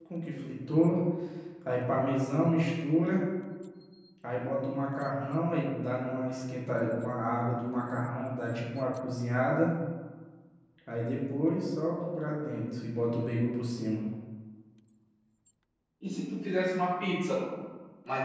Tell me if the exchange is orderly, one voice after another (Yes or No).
Yes